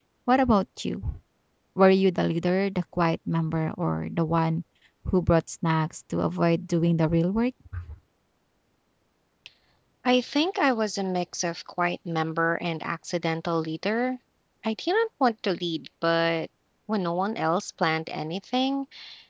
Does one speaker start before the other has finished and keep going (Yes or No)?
No